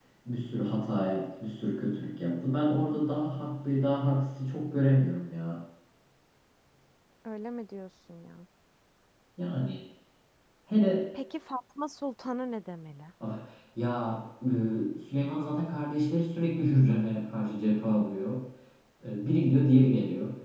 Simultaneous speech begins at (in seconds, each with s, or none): none